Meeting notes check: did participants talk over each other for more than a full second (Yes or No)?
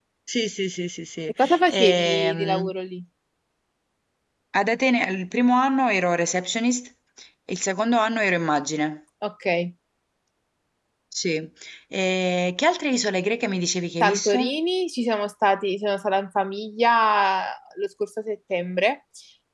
Yes